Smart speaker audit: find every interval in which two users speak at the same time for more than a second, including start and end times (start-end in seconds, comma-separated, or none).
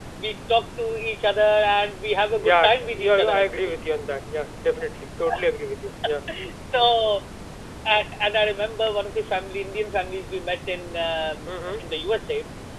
2.4-3.8